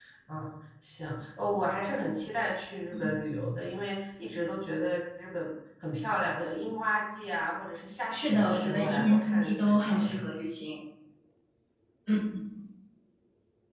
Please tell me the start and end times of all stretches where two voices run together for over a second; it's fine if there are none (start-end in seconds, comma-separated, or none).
8.1-10.2